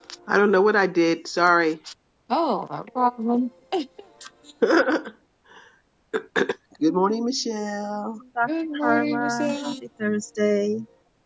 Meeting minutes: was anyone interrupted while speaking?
Yes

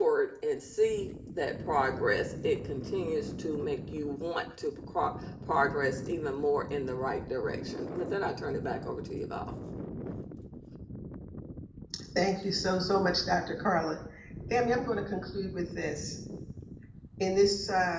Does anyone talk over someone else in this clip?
No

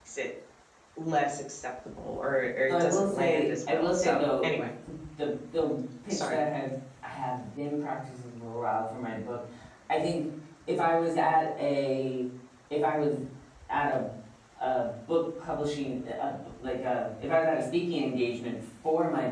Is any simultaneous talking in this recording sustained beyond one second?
Yes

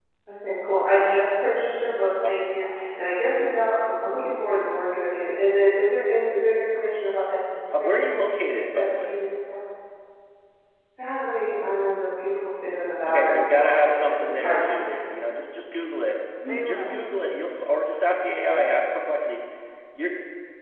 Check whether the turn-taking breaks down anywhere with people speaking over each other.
Yes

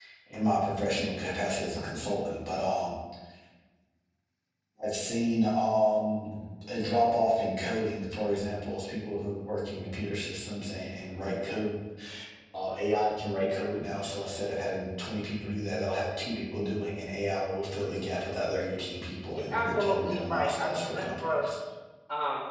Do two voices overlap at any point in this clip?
Yes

